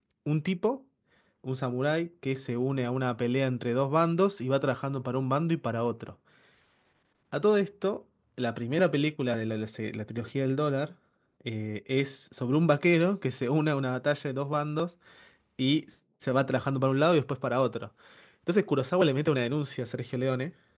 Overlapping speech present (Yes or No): No